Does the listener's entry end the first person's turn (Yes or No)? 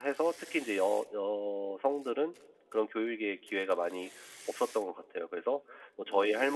No